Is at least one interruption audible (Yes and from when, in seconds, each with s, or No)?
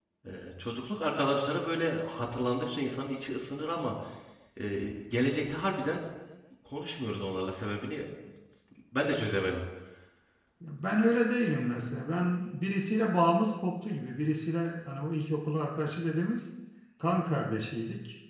No